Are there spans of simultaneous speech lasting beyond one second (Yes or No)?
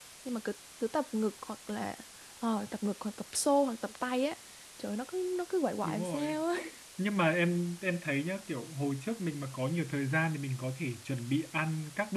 No